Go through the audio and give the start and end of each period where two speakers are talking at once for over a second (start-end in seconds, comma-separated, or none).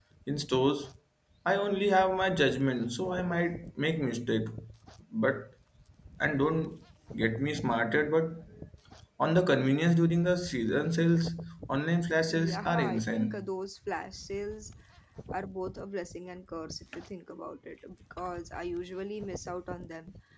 12.3-13.5